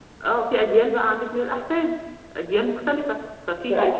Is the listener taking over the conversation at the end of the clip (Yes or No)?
No